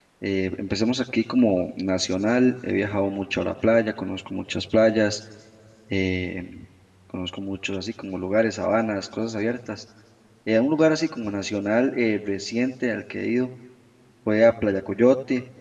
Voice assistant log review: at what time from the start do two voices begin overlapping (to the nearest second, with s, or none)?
none